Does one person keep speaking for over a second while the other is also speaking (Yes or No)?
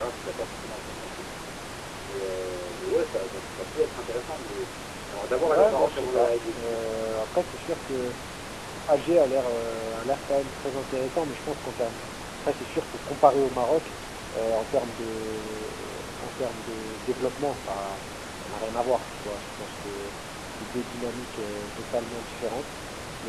Yes